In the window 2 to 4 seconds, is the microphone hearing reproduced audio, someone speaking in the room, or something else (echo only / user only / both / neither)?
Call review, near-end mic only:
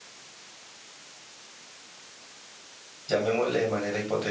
user only